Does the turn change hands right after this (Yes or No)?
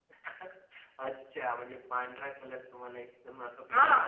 Yes